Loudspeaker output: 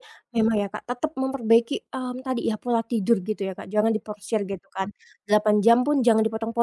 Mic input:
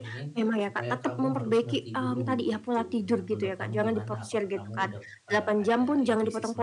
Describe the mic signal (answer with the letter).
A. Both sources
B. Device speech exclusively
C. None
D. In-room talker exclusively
A